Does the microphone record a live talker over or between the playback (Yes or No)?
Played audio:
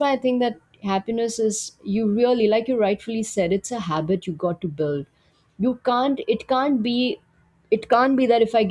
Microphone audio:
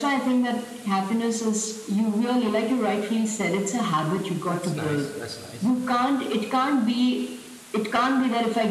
Yes